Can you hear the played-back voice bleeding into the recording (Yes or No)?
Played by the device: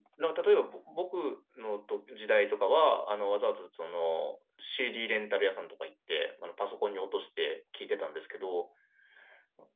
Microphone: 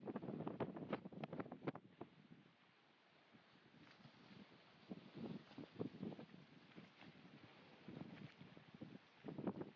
No